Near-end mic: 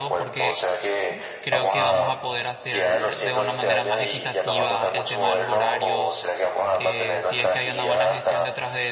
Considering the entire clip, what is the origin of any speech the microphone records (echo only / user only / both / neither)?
both